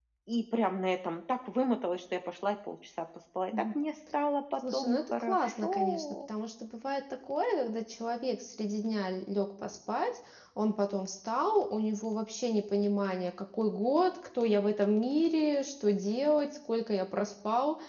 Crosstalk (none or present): present